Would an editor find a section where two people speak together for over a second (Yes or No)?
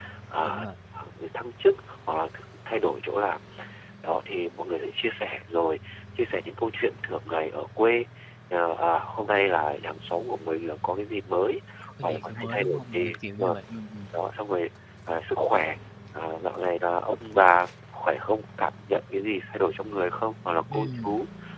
Yes